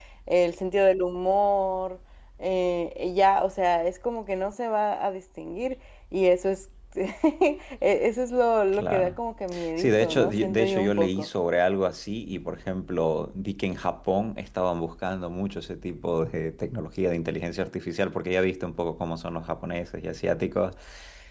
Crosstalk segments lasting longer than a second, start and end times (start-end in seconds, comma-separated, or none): 9.8-11.3